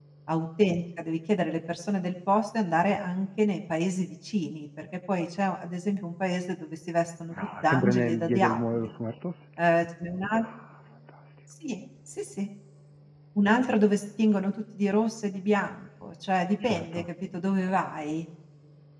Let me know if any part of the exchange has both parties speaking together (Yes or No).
Yes